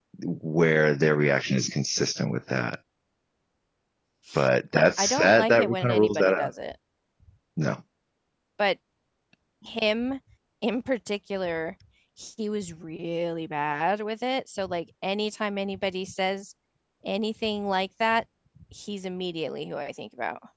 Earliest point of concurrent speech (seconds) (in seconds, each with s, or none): 4.8 s